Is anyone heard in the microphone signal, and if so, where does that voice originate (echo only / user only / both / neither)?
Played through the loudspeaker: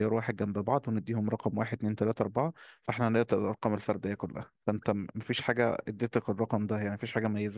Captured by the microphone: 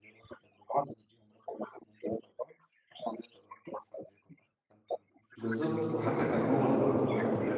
both